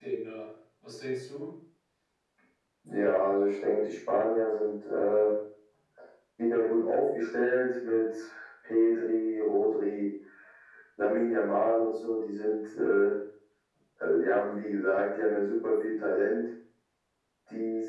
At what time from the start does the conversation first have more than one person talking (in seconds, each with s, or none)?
none